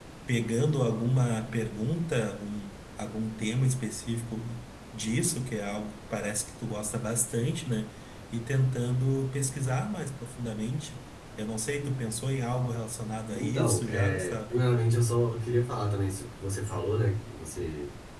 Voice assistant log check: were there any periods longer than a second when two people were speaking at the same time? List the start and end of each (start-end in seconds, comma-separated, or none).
13.3-14.6